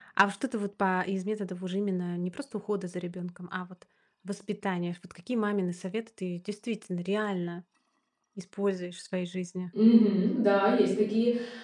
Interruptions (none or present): none